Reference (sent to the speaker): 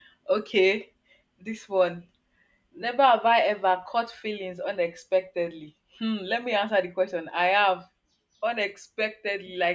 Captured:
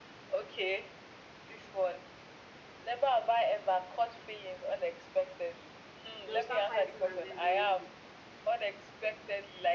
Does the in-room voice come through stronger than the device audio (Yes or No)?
No